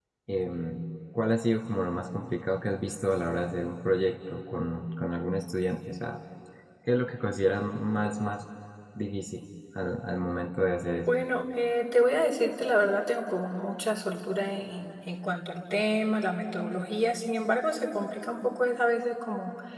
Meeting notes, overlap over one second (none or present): none